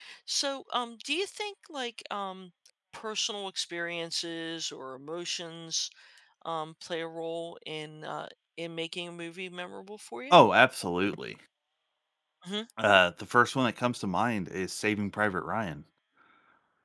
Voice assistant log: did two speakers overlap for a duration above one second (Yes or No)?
No